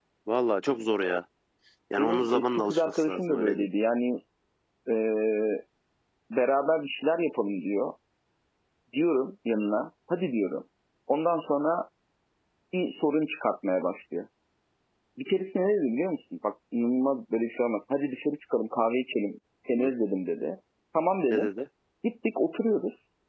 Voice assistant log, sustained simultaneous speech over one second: present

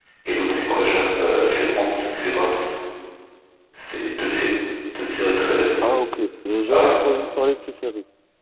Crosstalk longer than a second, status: none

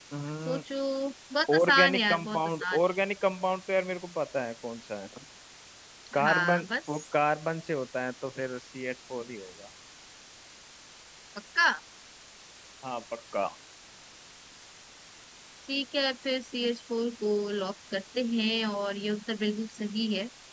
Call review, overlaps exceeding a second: present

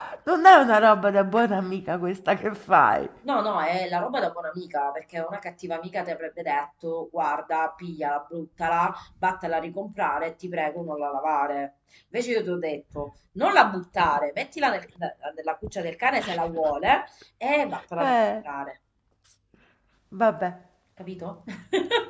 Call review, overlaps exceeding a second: none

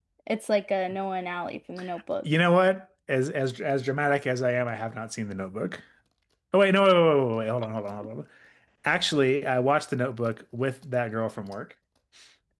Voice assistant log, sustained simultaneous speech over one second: none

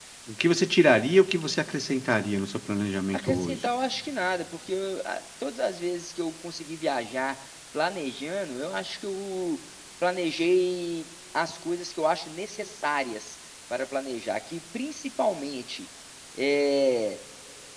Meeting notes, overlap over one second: none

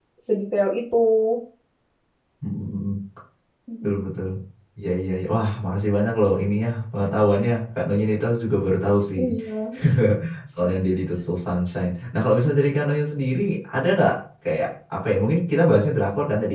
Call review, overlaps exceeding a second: none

